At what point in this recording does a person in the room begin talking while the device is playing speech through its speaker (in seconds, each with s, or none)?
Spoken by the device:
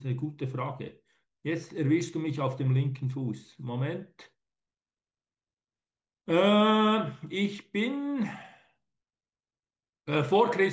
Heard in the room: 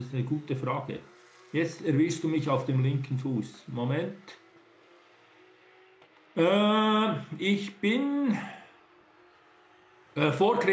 none